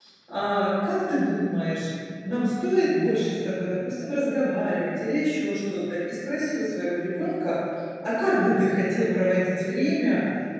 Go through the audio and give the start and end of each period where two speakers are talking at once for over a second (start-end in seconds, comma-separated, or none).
none